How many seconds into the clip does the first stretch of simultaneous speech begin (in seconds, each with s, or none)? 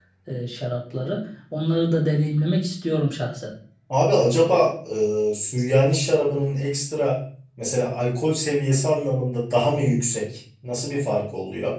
none